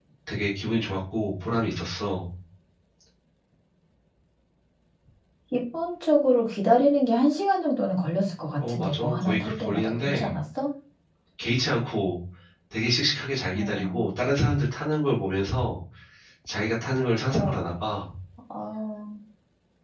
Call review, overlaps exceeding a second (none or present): present